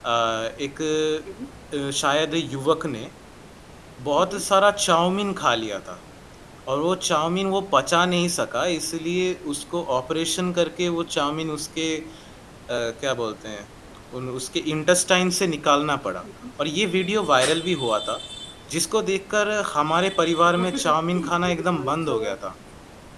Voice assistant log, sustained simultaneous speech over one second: present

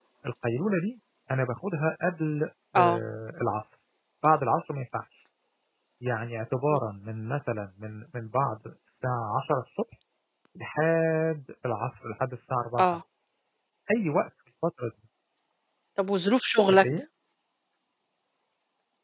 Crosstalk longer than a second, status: none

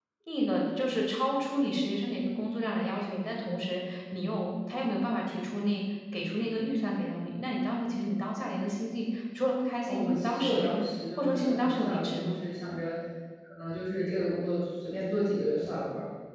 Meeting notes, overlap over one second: present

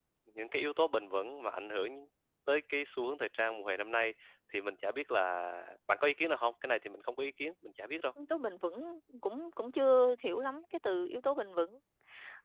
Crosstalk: none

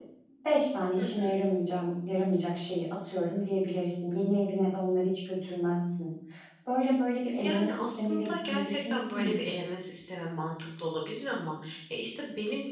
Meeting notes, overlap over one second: present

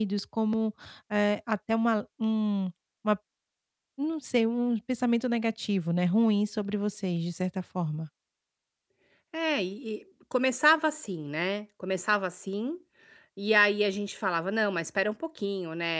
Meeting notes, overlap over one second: none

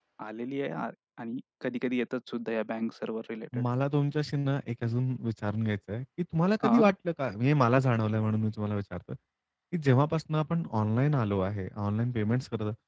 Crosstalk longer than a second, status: none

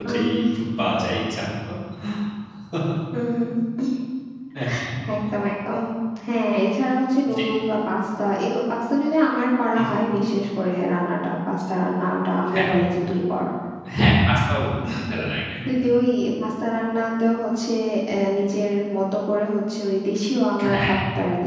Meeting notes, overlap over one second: none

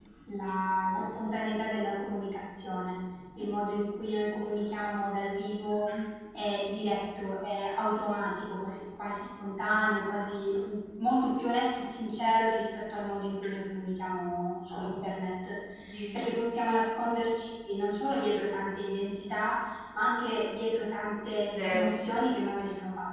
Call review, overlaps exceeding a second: none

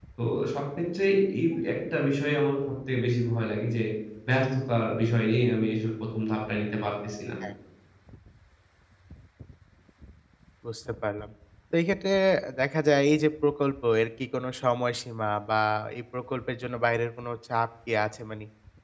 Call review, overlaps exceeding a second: none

